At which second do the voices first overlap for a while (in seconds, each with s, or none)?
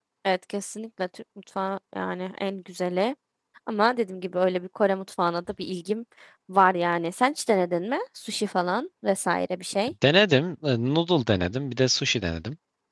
none